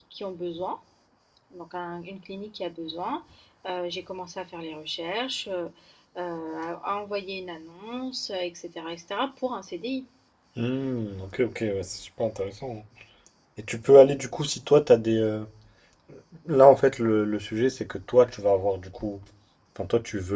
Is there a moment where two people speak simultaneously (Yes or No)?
No